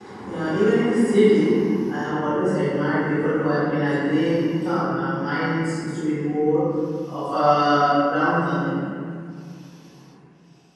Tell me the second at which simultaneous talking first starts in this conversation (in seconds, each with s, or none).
none